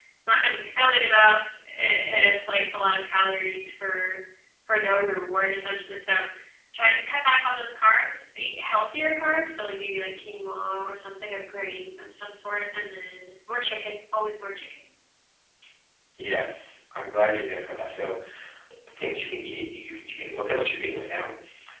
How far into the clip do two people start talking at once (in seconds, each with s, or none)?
none